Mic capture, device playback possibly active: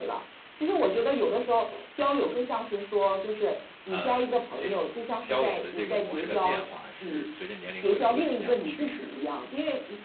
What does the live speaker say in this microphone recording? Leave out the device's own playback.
呃，这种交友的这个模式的变化，是随着年龄会有一个怎么样的趋势呢？

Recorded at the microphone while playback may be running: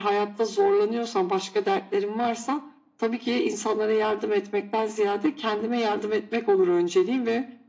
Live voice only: none

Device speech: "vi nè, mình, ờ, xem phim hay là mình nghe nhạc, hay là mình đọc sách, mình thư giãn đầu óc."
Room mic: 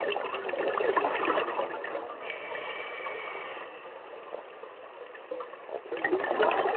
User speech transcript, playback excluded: none

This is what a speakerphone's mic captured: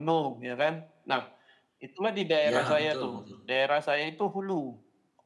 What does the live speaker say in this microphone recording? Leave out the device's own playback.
Ya, betul betul.

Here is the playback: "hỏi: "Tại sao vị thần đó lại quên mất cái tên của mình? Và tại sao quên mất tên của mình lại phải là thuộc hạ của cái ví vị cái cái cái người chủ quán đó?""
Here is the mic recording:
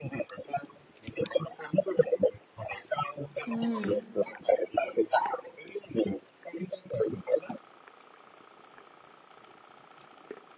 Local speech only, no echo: Ừm.

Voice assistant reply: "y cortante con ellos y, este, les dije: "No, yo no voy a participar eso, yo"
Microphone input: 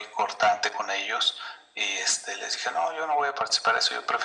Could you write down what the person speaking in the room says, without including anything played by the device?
none

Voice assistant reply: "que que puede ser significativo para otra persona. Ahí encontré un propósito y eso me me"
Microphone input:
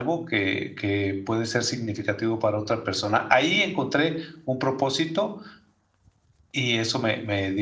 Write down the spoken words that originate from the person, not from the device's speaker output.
none

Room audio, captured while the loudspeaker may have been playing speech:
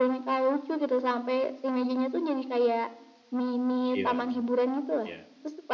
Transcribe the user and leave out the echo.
Gimana? Iya.

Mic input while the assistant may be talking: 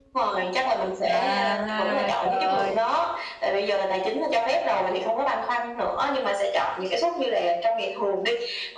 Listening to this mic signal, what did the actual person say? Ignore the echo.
À, trời ơi.

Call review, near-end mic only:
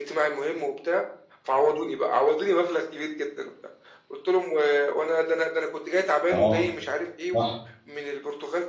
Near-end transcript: آه، صح.

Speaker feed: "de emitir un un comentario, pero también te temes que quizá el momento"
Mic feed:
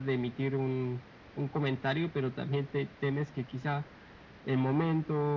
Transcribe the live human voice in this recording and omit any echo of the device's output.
none

